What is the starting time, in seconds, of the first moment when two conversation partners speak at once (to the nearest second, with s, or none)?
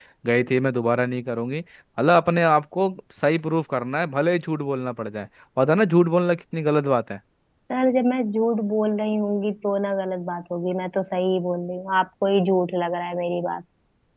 none